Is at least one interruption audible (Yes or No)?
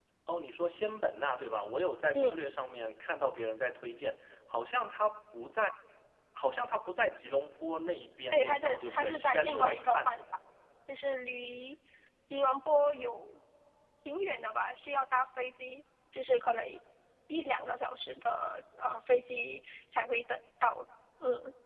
Yes